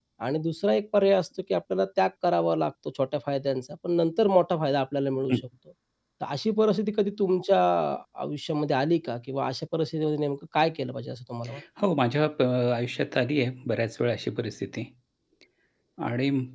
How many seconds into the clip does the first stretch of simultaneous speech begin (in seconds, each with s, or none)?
none